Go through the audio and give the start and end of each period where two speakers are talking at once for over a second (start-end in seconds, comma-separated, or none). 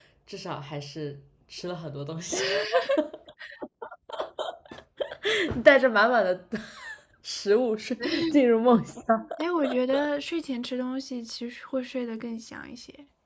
none